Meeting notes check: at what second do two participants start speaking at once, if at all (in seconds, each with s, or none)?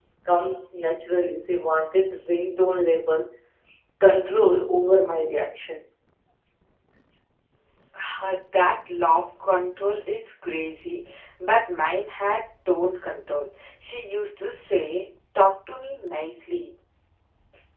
none